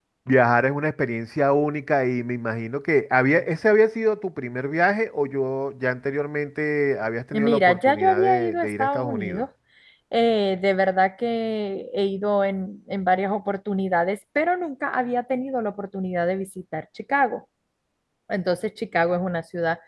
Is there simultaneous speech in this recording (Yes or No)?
Yes